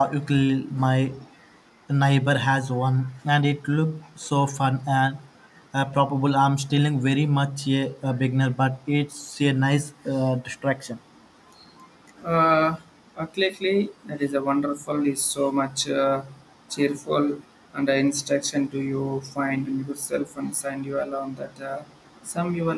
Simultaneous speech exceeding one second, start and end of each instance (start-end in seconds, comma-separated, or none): none